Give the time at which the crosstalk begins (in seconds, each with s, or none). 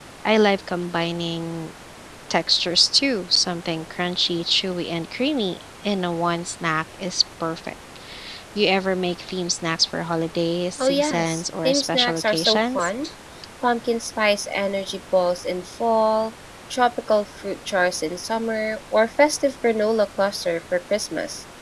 10.8 s